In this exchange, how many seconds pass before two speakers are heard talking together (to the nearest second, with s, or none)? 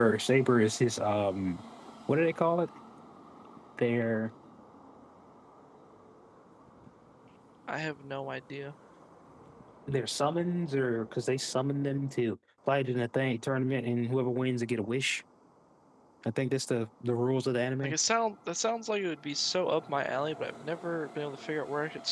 none